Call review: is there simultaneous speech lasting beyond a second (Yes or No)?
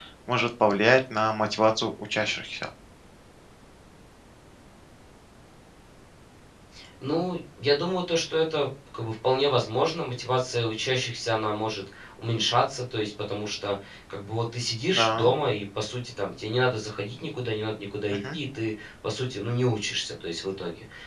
No